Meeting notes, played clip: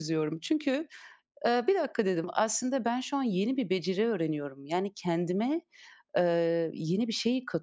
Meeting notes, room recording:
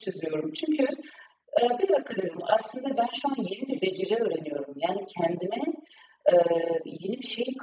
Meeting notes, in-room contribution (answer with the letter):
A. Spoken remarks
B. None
B